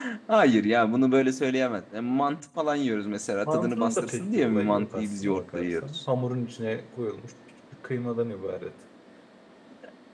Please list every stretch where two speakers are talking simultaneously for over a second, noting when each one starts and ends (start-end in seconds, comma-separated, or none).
3.4-6.0